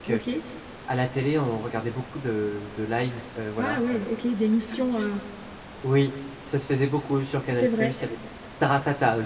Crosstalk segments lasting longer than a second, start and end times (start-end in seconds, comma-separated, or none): none